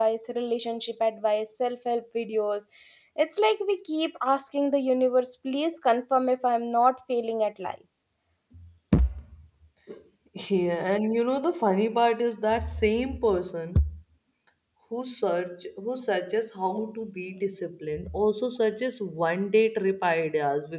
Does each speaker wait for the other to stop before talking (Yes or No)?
Yes